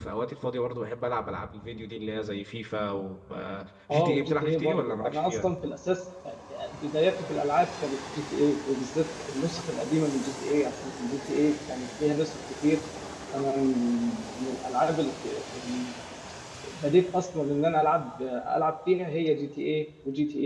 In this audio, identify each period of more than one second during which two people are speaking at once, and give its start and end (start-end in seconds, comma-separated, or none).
3.9-5.5